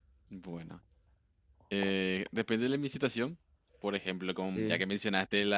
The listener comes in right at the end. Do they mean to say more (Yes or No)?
No